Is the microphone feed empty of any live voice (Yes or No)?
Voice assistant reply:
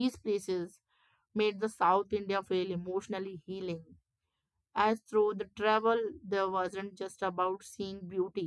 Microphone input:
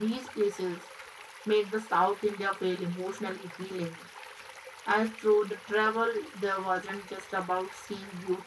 Yes